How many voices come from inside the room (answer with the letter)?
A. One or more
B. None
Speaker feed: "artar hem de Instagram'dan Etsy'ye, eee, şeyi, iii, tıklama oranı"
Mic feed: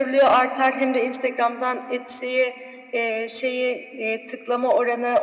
B